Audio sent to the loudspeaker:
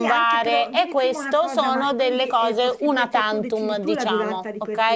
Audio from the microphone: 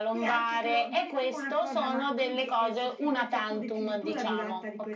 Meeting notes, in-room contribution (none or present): none